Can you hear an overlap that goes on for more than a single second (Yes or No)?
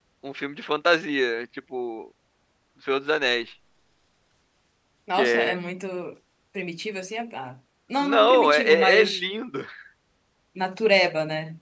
Yes